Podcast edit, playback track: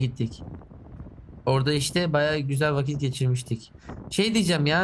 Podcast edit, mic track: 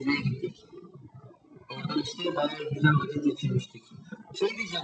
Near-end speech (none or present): none